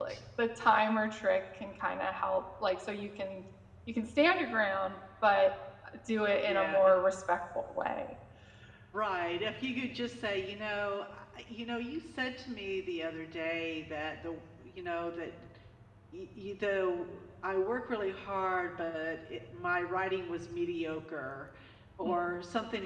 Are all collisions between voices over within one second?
Yes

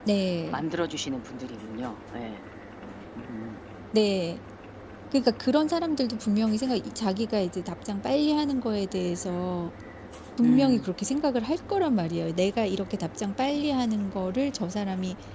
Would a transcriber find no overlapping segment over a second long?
Yes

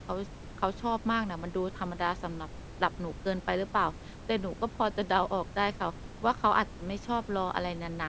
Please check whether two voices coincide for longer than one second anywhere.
No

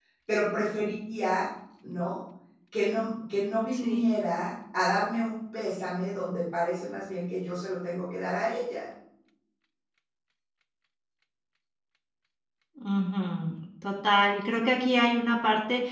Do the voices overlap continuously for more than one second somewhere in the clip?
No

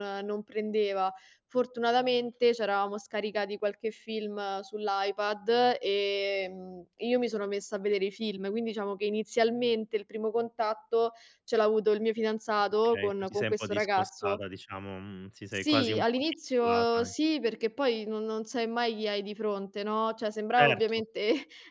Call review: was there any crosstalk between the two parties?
Yes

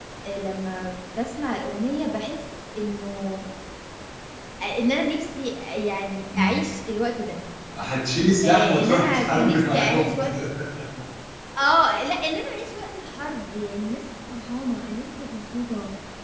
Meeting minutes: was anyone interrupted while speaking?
Yes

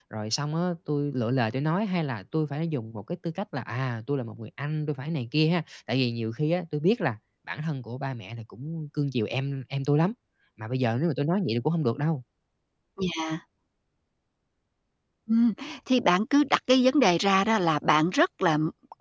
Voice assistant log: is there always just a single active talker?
Yes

